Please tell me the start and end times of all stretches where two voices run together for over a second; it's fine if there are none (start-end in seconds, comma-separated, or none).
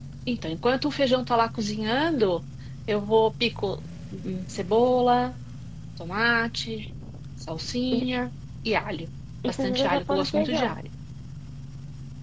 9.5-10.8